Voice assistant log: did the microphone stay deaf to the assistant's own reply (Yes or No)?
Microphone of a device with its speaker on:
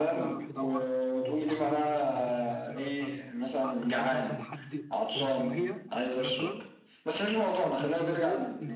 No